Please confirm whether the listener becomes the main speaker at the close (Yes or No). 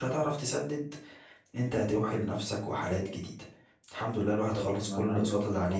Yes